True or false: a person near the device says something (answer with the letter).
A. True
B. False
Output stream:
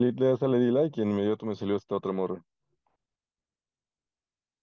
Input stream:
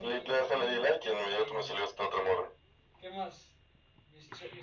A